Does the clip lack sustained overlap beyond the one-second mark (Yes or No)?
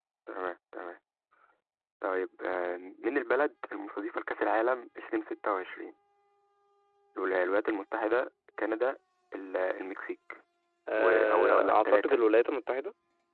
No